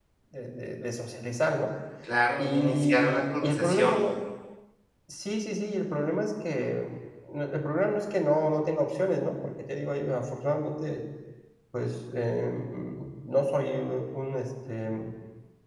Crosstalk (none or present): present